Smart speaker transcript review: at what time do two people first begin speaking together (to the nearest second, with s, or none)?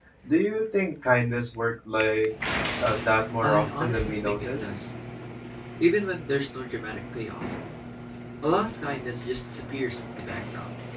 3 s